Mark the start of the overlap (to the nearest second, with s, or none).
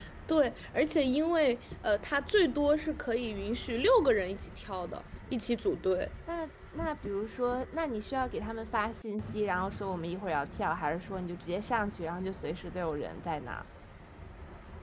none